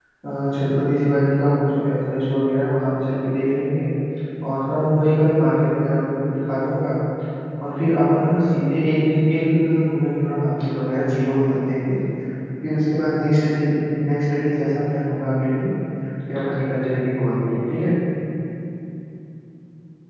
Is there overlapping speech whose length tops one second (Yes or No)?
No